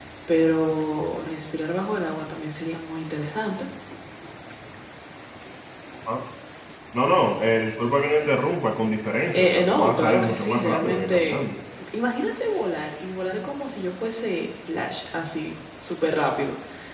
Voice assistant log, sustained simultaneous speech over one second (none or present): present